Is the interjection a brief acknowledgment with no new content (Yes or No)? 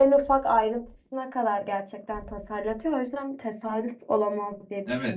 No